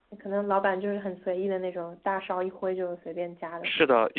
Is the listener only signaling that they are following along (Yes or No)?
No